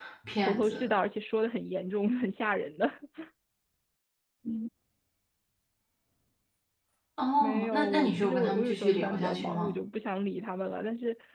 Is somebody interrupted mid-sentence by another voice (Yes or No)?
Yes